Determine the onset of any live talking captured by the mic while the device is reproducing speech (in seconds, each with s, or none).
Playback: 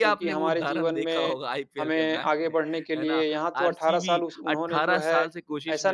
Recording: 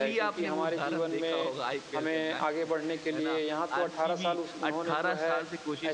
none